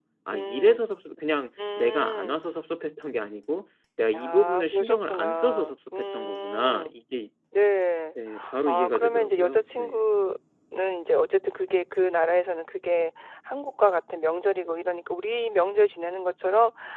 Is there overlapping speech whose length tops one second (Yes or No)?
Yes